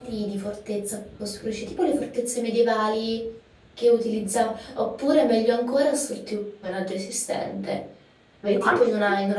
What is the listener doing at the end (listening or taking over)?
listening